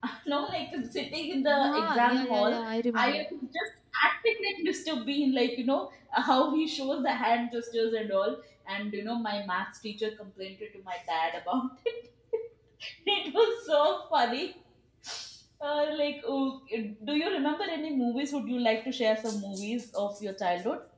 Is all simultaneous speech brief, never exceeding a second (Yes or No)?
No